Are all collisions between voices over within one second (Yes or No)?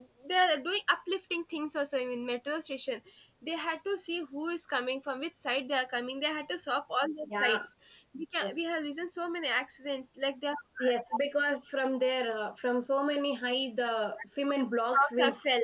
Yes